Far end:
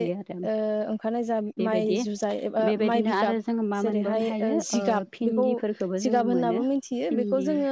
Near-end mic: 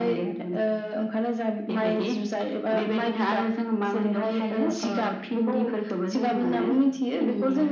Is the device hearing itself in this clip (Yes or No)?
Yes